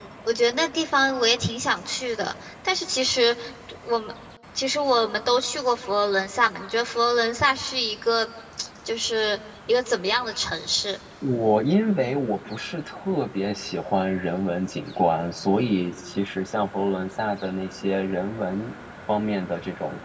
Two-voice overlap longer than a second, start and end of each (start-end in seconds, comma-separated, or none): none